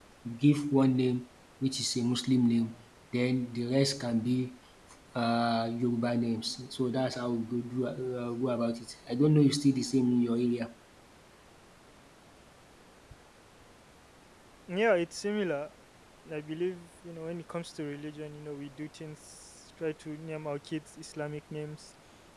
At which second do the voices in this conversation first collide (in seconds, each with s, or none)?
none